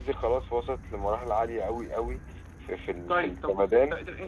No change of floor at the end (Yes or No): No